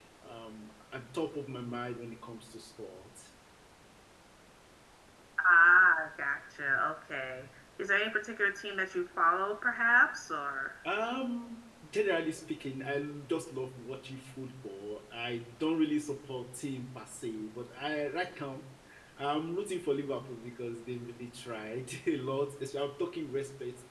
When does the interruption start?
none

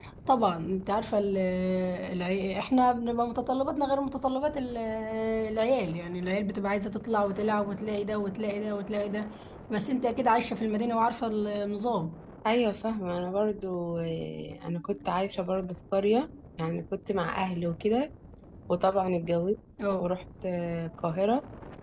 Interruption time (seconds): none

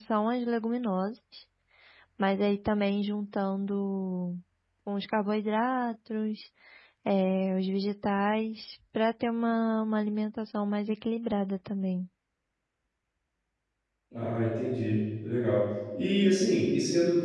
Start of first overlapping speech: none

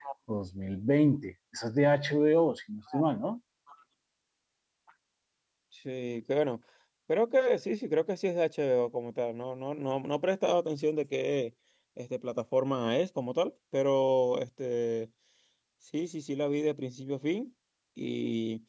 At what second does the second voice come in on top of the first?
none

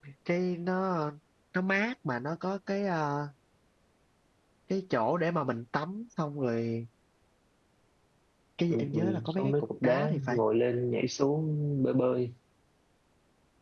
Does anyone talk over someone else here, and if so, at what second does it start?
9 s

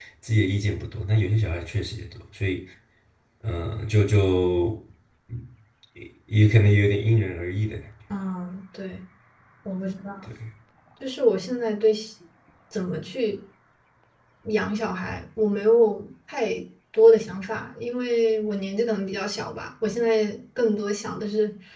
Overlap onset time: none

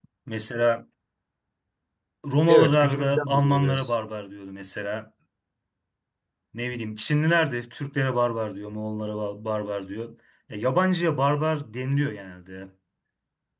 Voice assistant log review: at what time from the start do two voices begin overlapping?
2 s

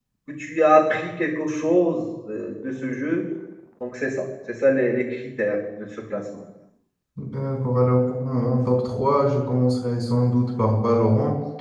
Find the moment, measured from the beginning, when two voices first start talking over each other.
none

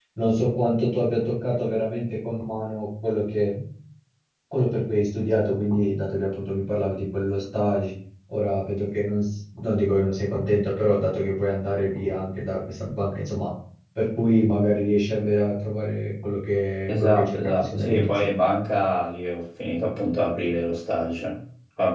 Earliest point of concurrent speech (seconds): 17 s

